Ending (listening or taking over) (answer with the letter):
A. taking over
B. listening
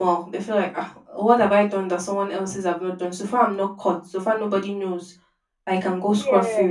B